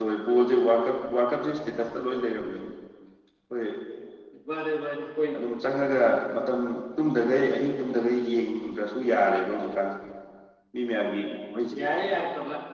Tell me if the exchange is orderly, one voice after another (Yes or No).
Yes